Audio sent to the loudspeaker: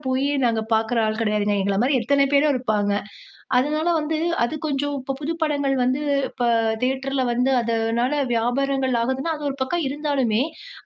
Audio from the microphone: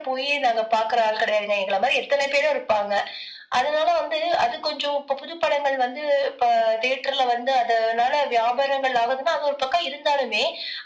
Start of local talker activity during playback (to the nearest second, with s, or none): none